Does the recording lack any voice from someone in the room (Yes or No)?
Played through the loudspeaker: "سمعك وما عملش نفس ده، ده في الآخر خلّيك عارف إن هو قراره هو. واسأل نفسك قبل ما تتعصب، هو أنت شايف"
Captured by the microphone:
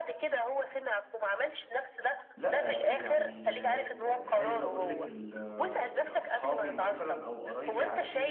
No